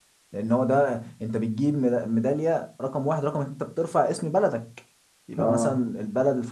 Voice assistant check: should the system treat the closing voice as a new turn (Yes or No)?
No